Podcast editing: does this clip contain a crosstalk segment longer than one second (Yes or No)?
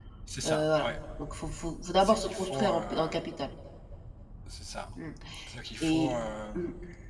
Yes